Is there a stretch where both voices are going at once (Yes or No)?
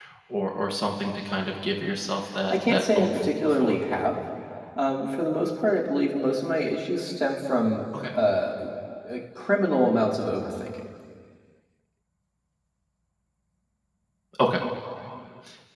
Yes